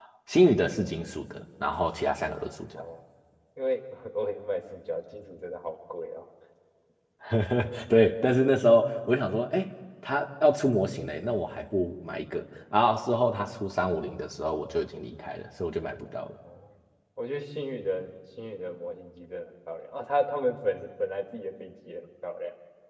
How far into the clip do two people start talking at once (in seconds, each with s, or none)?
none